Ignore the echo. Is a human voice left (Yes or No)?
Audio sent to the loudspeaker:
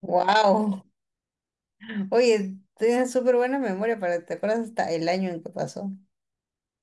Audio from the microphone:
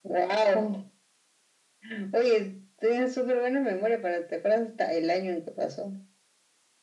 No